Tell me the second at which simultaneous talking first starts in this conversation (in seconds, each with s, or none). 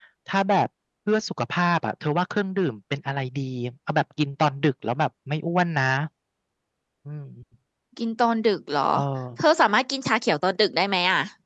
none